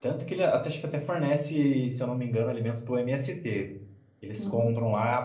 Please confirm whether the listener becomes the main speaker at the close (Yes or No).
No